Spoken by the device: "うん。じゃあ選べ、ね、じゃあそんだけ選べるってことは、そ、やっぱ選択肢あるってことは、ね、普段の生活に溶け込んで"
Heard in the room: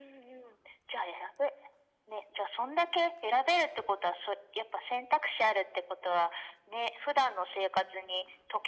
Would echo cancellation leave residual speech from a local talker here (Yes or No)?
No